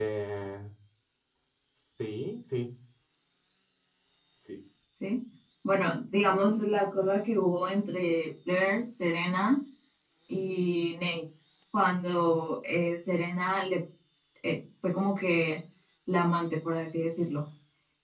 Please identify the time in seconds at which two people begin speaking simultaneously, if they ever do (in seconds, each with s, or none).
none